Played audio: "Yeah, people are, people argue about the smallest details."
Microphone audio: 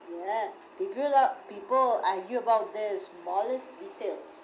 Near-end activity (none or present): none